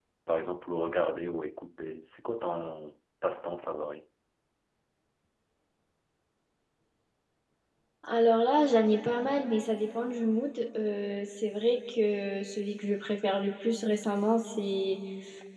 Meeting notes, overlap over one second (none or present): none